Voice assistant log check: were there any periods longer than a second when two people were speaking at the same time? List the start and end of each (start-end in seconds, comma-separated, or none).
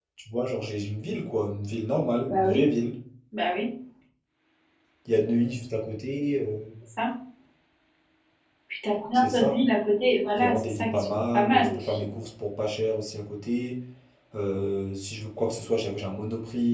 10.4-12.1